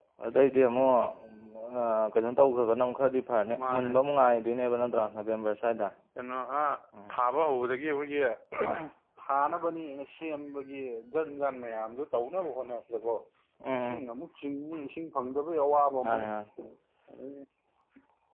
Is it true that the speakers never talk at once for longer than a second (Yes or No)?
Yes